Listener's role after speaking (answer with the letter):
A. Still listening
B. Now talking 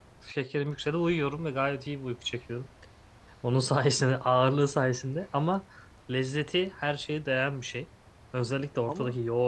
A